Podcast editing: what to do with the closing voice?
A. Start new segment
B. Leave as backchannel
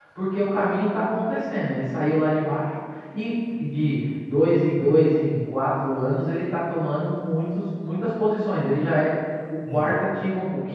B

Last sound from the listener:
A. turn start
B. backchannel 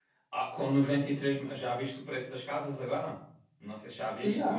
A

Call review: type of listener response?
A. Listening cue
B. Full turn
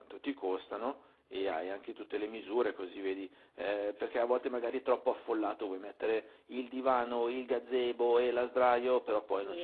B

